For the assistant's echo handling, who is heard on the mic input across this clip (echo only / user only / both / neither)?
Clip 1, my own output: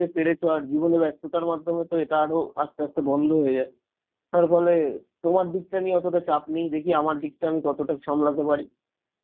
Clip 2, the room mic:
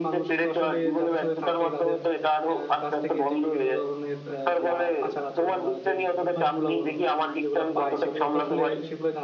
both